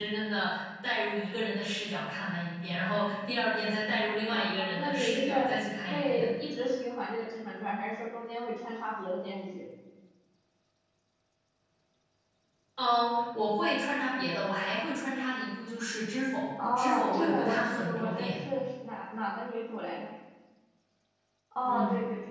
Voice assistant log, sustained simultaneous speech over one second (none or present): present